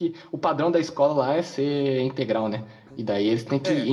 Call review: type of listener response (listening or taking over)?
listening